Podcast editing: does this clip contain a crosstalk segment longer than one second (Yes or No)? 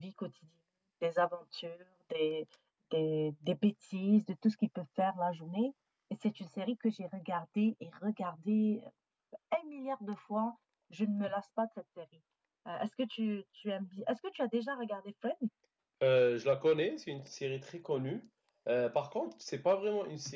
No